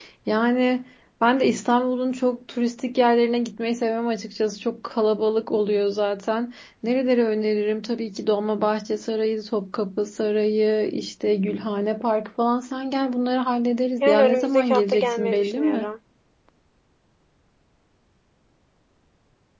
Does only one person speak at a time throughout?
No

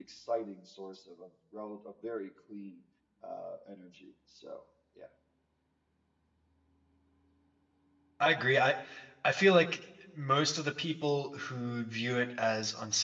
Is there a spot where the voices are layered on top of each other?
No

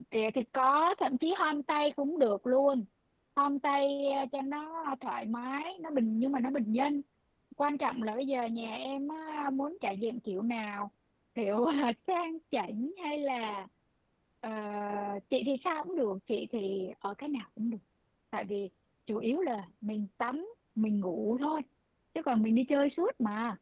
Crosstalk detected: No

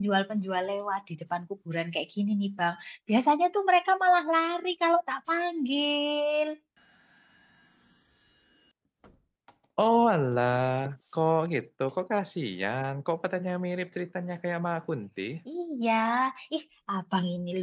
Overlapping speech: No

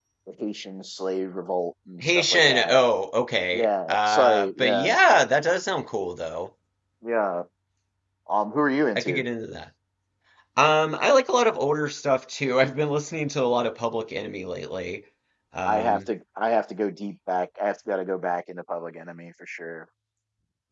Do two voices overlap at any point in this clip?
Yes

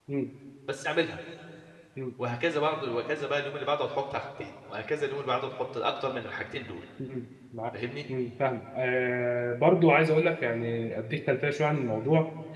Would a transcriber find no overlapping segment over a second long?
Yes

